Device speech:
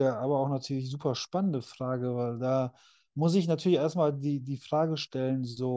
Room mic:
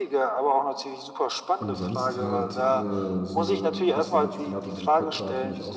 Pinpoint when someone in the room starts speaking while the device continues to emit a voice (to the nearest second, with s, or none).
2 s